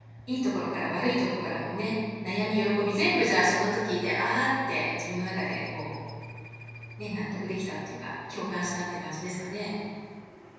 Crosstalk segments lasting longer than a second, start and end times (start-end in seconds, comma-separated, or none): none